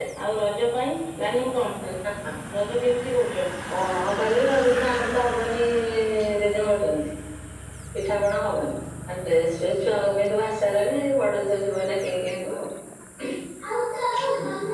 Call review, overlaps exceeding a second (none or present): none